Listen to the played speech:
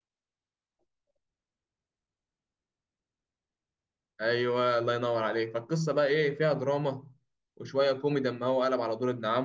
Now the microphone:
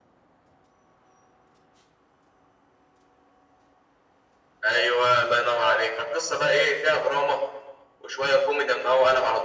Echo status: present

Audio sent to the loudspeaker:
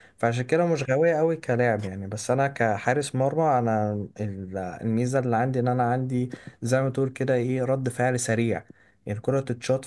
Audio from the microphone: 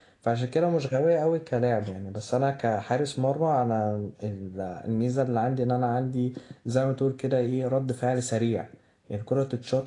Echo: present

